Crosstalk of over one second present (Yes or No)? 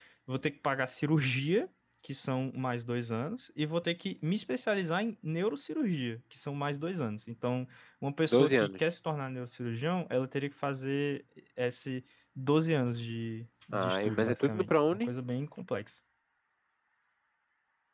Yes